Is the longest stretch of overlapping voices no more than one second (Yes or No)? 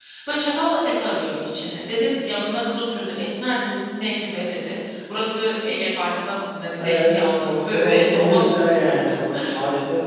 No